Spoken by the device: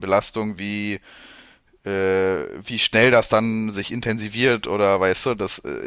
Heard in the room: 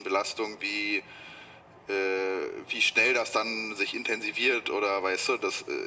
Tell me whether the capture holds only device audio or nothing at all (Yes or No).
Yes